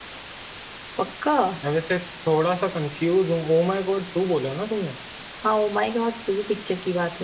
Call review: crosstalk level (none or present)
none